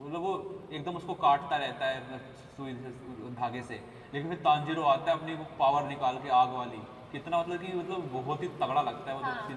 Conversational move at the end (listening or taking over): taking over